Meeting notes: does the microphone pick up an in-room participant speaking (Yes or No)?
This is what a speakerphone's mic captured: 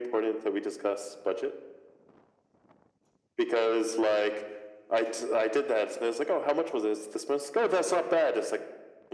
No